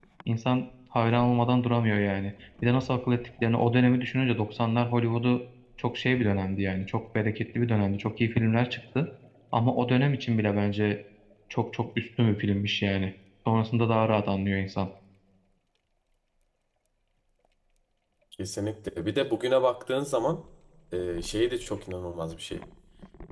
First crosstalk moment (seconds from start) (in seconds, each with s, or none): none